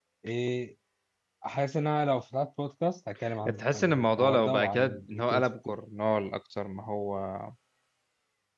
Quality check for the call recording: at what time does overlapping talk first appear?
3 s

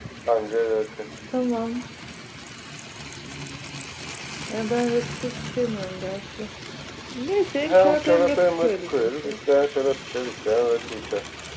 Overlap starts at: 8 s

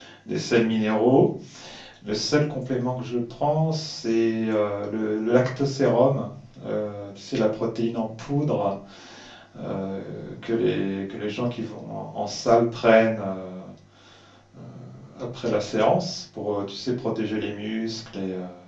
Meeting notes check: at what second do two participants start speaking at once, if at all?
none

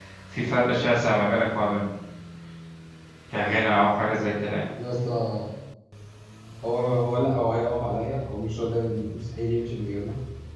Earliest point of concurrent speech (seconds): none

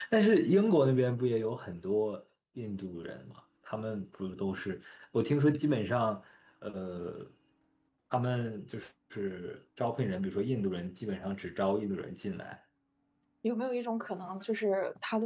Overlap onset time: none

